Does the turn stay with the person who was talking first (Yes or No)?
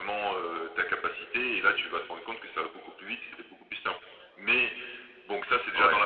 No